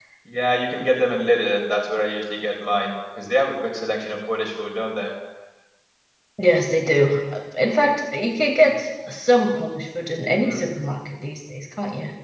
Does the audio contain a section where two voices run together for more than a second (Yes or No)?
No